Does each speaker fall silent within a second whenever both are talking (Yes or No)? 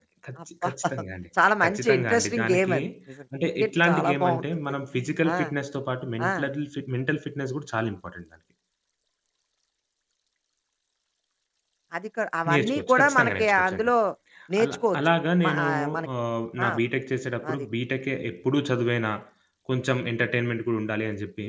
No